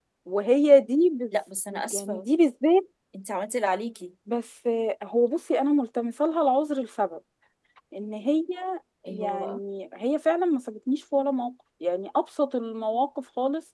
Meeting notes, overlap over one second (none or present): none